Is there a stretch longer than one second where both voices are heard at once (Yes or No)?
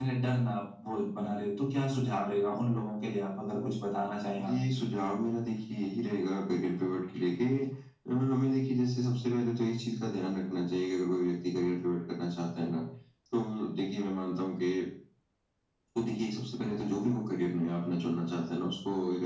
No